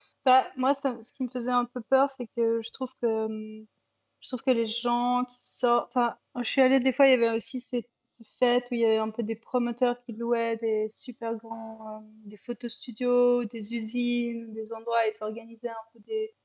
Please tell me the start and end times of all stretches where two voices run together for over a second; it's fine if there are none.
none

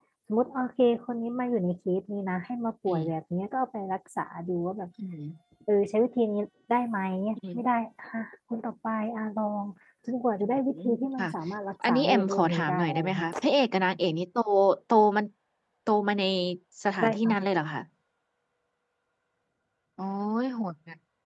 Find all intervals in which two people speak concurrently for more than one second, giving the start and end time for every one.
11.9-13.3

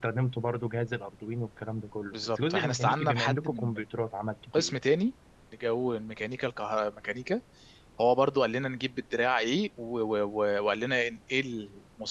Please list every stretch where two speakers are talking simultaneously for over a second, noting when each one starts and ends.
2.1-3.8

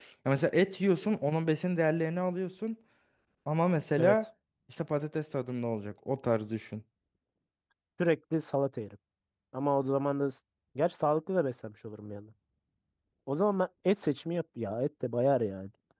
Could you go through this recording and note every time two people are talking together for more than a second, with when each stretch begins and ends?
none

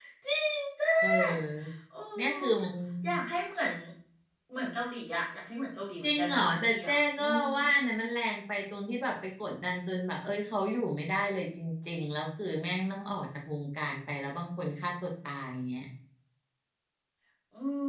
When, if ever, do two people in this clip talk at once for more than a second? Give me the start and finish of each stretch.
6.0-7.4

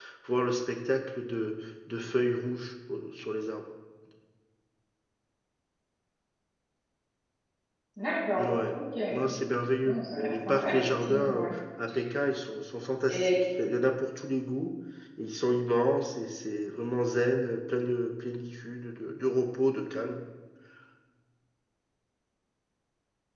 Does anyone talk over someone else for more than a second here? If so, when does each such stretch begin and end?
9.8-11.5

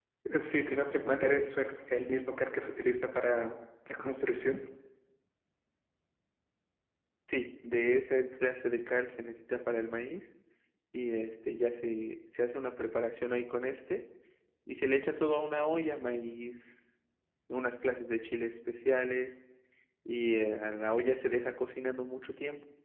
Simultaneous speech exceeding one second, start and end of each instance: none

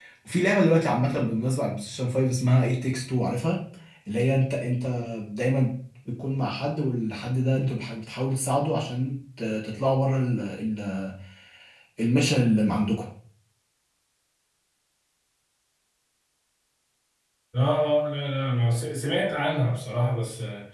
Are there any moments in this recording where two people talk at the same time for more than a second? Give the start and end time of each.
none

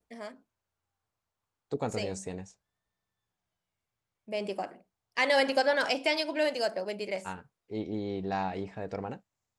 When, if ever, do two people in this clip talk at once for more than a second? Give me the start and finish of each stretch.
none

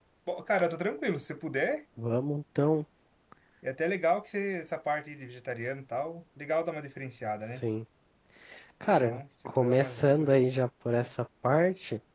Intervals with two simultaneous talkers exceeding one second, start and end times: 9.0-10.4

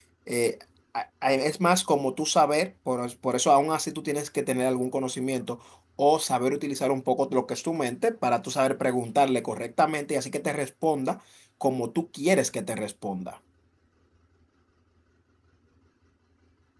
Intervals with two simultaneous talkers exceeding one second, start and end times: none

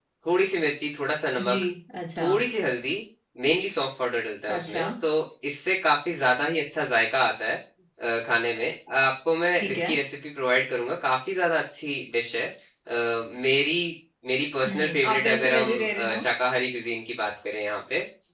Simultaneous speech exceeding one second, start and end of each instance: 14.7-16.2

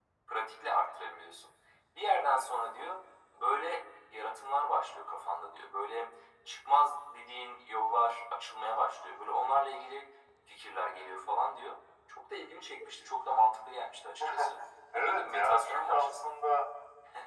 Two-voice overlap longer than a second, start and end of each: 14.9-16.3

